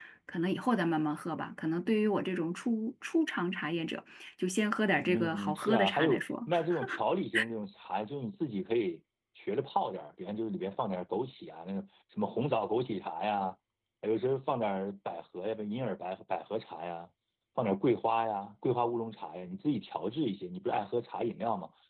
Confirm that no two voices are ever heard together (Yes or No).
No